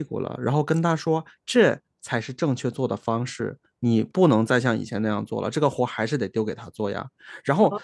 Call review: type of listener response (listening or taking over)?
taking over